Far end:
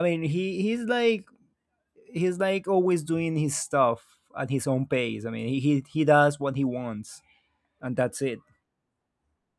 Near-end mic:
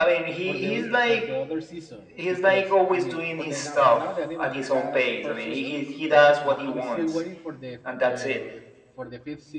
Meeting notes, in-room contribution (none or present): present